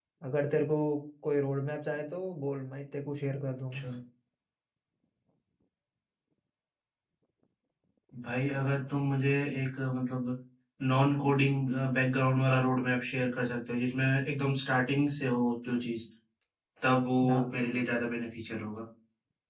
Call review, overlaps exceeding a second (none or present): none